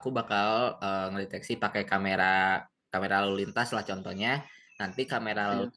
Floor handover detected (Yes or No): No